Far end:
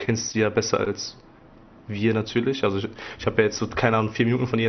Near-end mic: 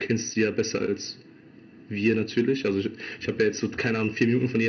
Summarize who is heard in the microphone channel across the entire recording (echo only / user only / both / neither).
echo only